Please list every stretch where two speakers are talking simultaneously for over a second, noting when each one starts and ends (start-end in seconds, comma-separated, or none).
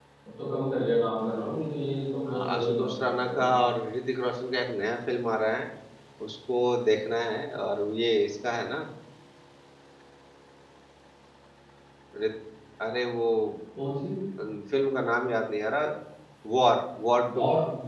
2.3-3.5